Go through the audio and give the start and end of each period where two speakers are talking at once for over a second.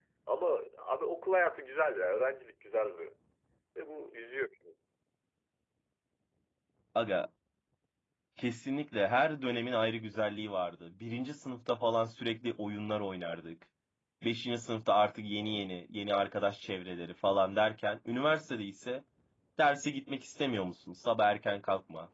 none

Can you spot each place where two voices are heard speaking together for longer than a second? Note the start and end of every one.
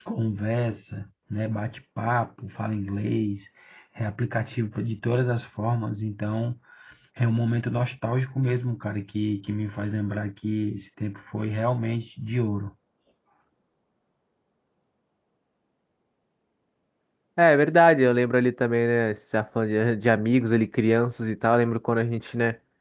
none

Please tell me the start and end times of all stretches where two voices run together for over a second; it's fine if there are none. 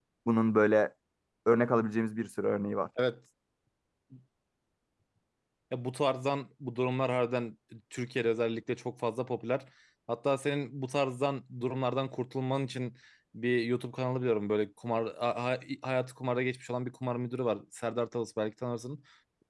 none

